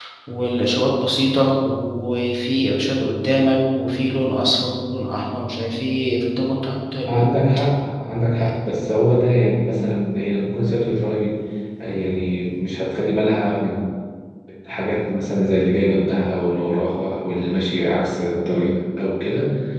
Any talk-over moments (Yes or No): No